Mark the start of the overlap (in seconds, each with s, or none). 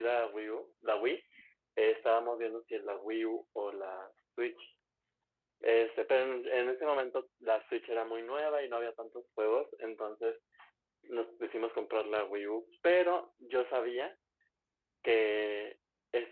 none